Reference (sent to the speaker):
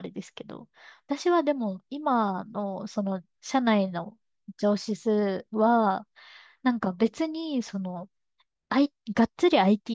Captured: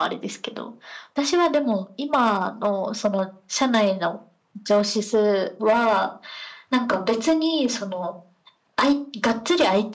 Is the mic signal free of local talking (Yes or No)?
Yes